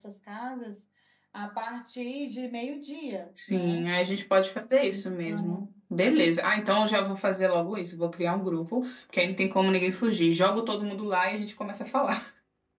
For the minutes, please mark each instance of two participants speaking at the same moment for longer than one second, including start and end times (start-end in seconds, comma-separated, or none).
none